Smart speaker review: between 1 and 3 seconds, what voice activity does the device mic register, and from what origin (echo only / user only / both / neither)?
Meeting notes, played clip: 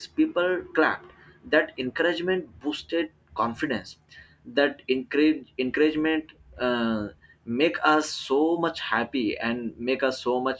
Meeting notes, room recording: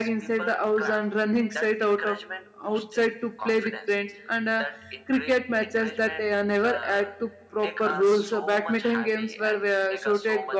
both